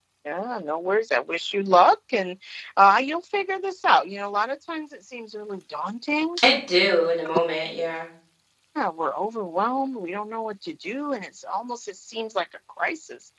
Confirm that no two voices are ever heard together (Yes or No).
Yes